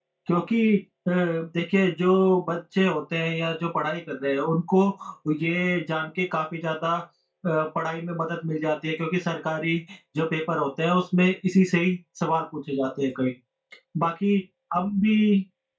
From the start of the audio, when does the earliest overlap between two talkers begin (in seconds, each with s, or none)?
none